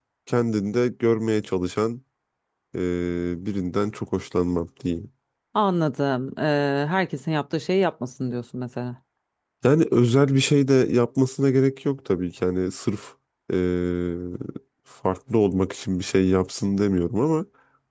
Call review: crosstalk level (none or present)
none